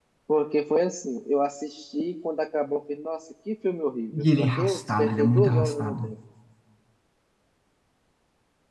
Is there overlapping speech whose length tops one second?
Yes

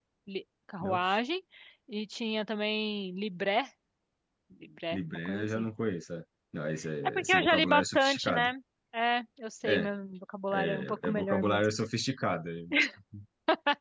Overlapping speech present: Yes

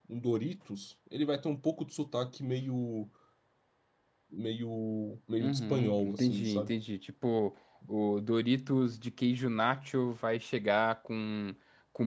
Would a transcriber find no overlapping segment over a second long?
No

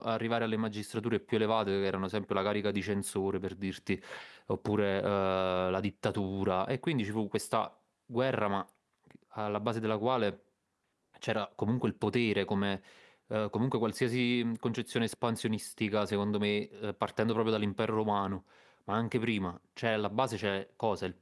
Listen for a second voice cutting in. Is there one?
No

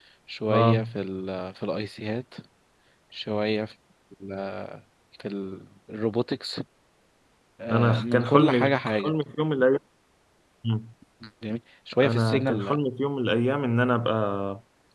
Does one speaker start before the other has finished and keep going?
Yes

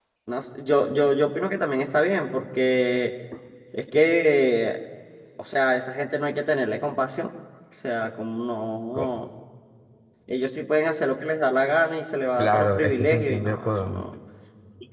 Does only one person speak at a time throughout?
No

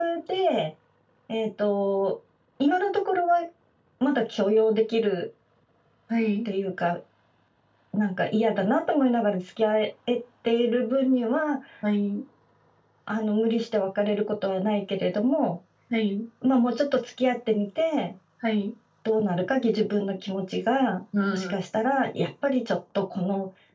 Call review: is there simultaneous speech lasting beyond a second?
No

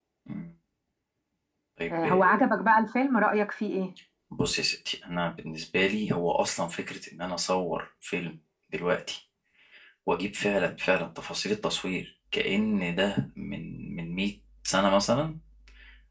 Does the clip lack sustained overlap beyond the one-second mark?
Yes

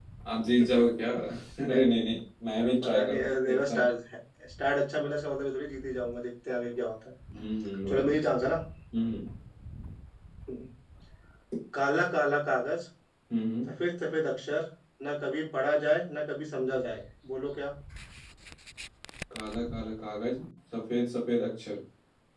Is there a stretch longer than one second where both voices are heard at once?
Yes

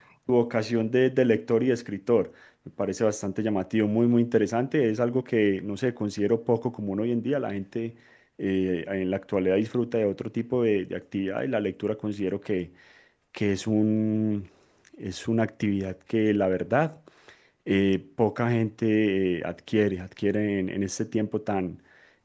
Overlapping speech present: No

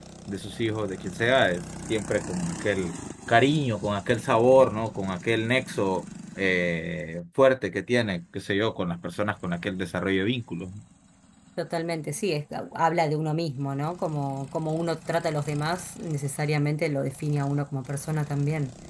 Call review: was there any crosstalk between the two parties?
No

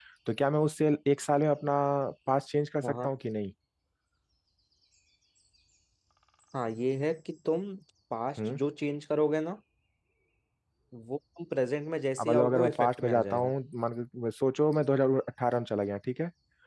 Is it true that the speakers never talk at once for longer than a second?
No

